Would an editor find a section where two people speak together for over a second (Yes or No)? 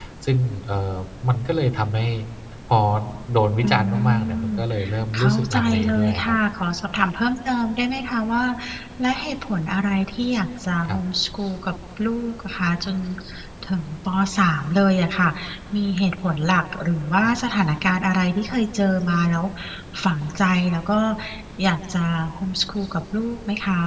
Yes